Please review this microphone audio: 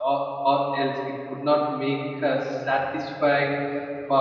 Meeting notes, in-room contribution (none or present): present